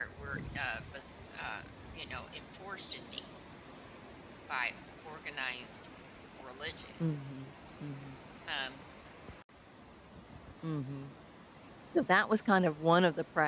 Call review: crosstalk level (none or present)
none